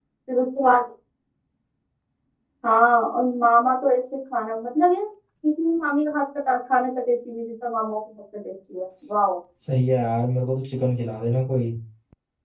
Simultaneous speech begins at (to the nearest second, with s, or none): none